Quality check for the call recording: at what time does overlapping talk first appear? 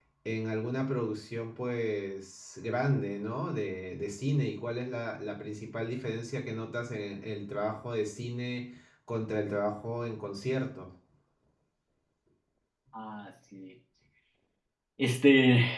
none

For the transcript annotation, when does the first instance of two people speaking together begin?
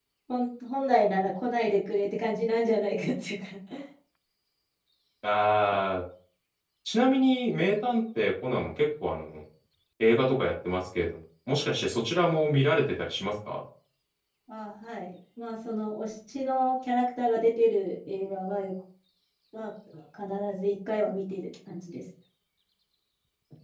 none

